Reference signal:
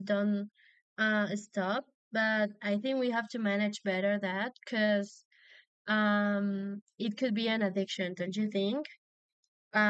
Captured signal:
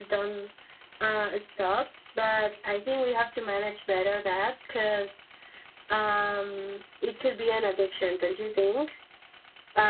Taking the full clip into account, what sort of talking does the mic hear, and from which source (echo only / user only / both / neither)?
echo only